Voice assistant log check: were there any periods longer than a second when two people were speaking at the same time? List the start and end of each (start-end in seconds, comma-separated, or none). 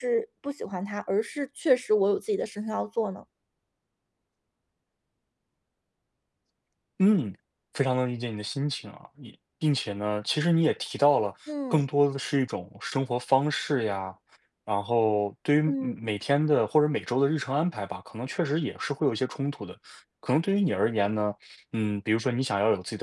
none